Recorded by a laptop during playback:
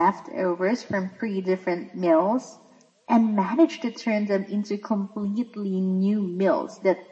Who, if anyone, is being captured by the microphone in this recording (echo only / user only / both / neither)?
echo only